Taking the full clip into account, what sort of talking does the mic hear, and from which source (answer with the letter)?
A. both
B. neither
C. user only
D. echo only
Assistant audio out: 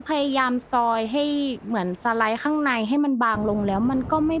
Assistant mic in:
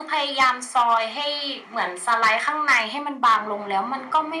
D